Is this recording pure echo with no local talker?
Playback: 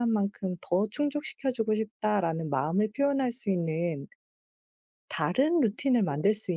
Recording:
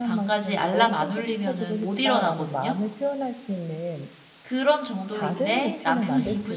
No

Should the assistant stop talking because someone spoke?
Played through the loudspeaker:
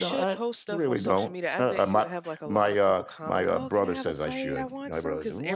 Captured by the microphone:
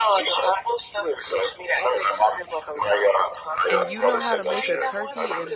Yes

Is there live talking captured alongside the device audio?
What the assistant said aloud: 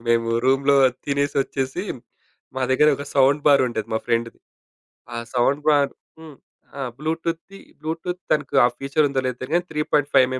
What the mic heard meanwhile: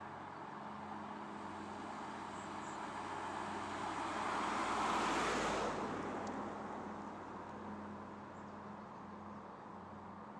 No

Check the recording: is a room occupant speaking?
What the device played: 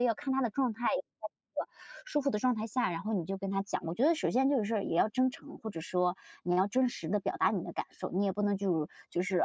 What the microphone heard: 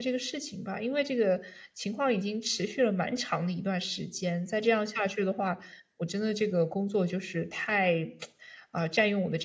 Yes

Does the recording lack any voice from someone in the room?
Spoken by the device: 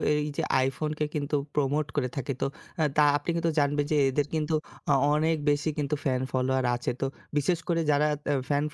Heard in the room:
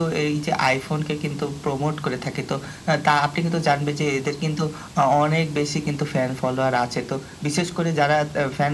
Yes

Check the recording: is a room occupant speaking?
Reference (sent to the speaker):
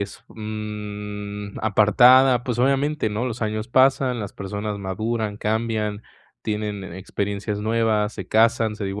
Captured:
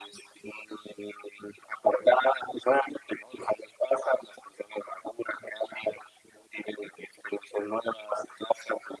No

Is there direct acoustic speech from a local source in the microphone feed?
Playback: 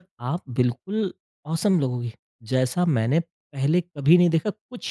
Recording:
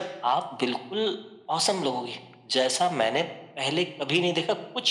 No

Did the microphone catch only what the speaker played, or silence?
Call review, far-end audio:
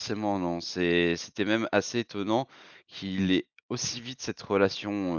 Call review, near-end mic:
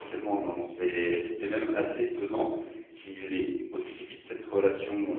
Yes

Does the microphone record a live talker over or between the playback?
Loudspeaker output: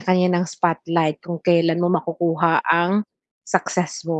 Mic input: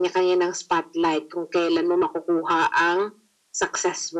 No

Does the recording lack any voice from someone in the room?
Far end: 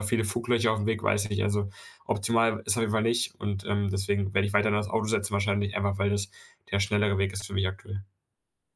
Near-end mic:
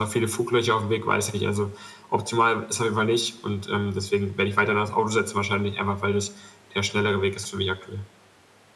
Yes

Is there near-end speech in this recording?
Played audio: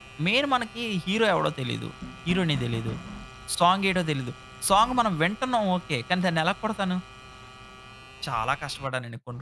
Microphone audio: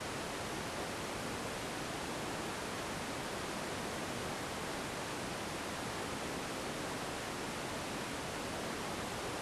No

